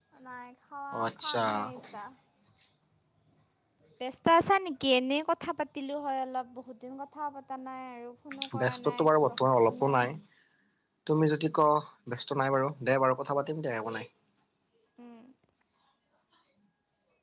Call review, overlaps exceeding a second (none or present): present